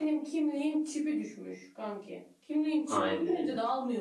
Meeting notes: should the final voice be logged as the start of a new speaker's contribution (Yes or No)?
No